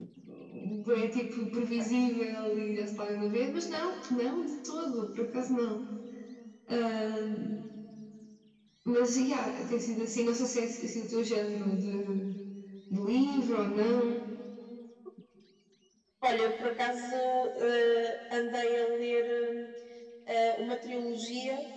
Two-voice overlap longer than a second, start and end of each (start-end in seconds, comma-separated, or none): none